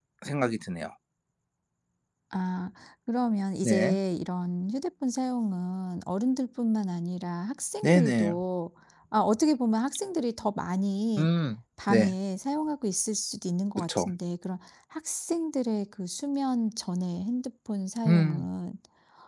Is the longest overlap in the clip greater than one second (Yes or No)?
No